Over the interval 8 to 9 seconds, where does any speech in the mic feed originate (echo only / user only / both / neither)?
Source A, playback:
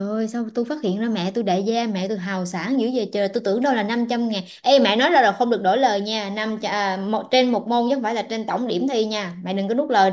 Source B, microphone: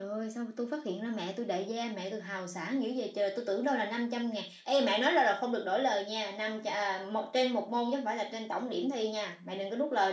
echo only